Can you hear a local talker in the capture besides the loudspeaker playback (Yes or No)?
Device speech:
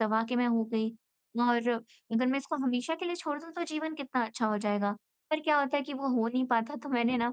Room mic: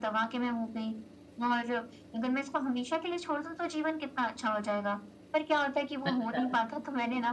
Yes